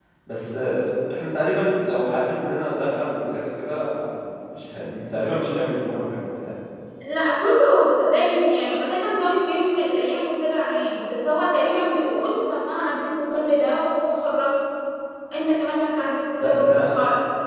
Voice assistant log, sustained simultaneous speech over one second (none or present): none